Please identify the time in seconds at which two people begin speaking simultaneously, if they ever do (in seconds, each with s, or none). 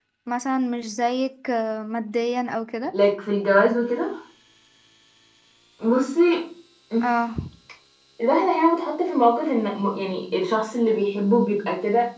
none